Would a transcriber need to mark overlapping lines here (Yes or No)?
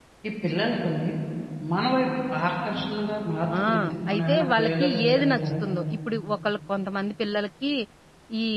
Yes